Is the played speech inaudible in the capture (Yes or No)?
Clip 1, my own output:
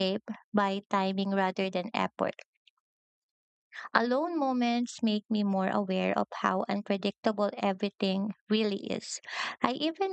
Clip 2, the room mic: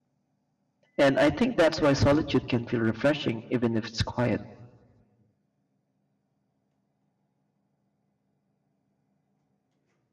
Yes